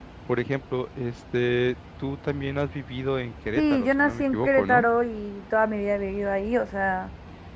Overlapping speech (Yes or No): Yes